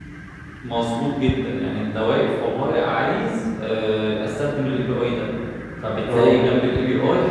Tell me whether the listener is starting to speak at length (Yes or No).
No